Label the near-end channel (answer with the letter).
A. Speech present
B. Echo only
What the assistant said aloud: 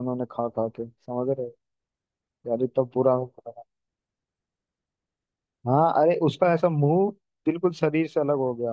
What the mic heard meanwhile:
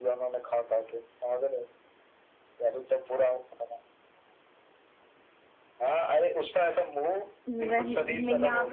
A